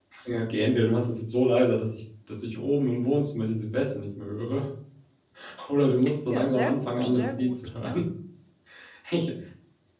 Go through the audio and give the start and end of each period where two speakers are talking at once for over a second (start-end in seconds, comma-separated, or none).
6.3-8.0